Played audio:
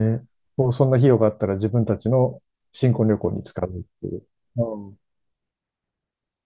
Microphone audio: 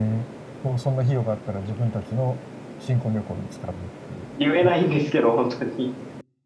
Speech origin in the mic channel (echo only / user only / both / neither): both